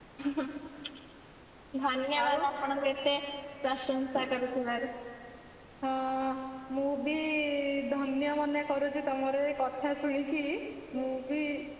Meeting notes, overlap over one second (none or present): none